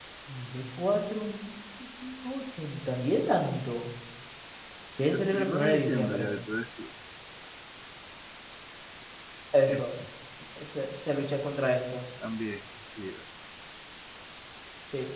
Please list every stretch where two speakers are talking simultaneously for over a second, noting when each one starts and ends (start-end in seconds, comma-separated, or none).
5.1-6.3